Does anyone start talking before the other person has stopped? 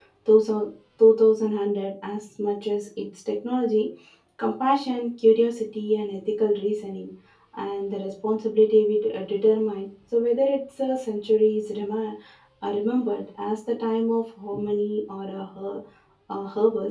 No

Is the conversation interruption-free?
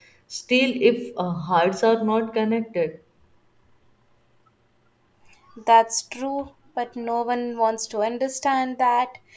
Yes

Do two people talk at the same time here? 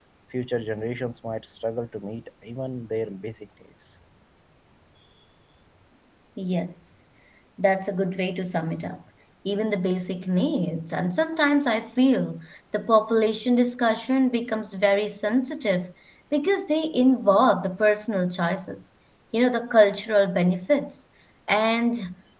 No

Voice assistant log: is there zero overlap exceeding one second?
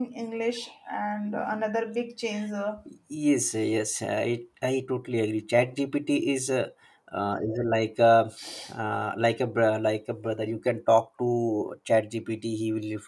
Yes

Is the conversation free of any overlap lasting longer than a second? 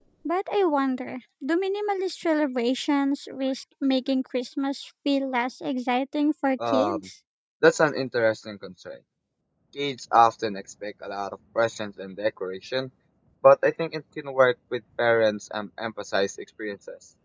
Yes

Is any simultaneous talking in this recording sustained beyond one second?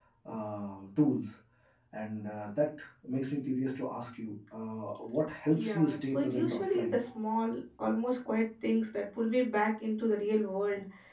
Yes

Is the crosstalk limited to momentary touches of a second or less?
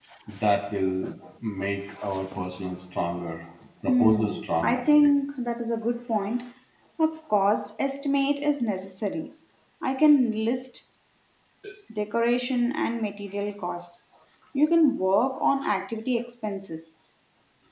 No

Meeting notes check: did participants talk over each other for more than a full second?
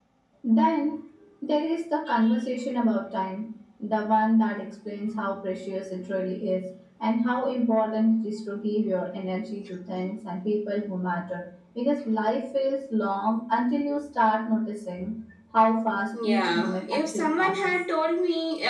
Yes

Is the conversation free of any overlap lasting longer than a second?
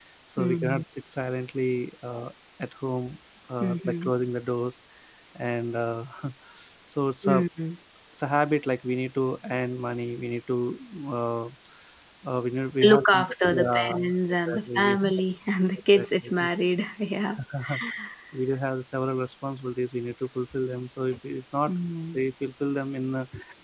No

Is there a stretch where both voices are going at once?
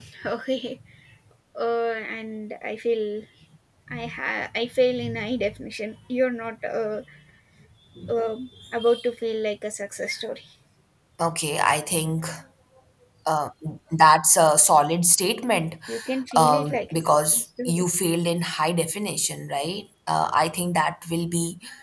Yes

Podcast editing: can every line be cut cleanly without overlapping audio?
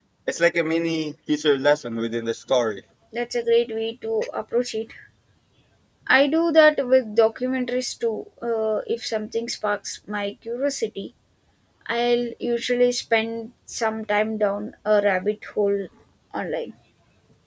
Yes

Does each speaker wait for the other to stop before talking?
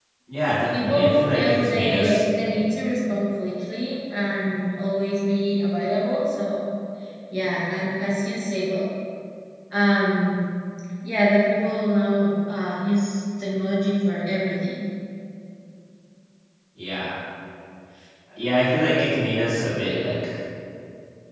No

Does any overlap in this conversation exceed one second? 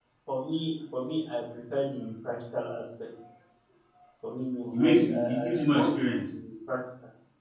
Yes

